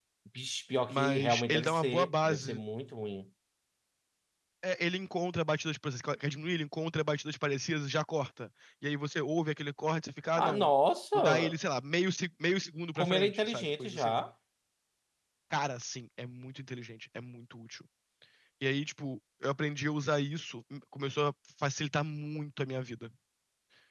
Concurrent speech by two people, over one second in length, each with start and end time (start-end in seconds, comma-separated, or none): 0.9-2.6, 13.0-14.2